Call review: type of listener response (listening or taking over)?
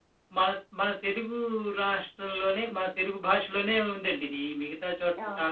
listening